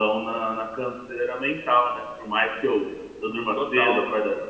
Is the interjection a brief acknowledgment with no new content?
Yes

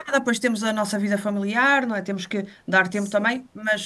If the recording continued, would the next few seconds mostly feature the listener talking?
No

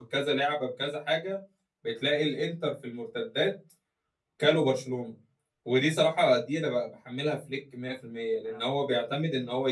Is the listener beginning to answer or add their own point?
No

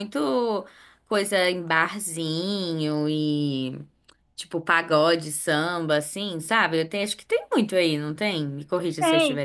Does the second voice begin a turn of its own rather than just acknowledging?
Yes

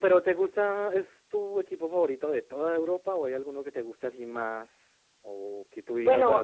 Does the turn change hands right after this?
Yes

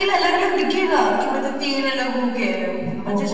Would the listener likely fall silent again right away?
No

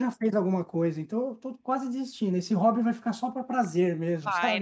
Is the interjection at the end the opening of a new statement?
Yes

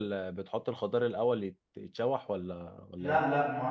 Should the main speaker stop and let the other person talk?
Yes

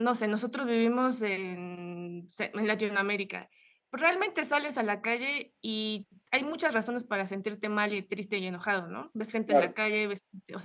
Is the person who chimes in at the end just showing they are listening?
Yes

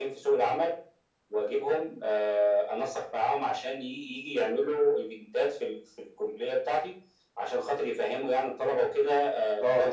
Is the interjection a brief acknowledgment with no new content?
Yes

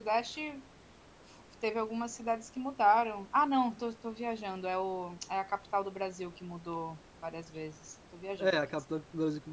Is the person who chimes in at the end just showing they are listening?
No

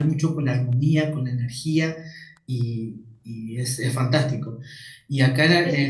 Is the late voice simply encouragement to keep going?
Yes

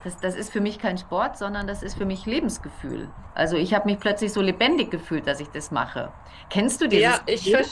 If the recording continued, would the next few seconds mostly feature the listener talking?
Yes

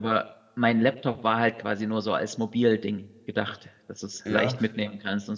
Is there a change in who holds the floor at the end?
No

